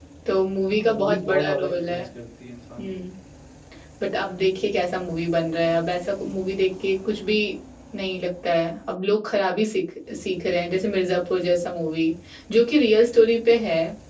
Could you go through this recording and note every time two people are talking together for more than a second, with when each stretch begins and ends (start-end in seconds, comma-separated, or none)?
0.7-2.0